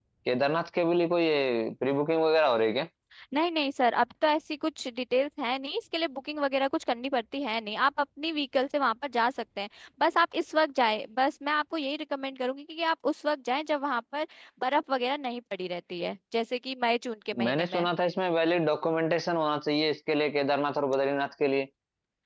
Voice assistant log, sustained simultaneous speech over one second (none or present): none